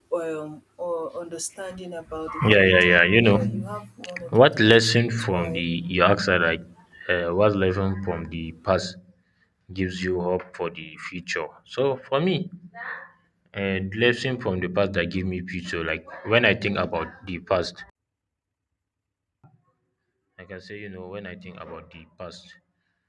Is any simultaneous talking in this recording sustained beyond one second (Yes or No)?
Yes